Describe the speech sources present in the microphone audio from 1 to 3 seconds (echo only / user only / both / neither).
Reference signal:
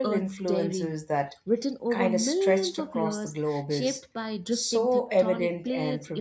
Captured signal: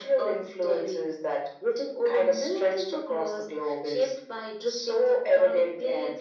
echo only